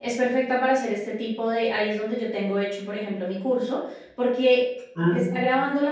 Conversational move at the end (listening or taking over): listening